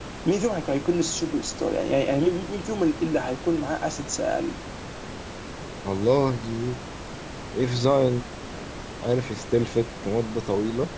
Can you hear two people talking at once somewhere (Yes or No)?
No